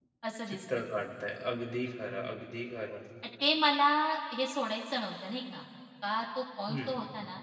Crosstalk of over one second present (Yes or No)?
No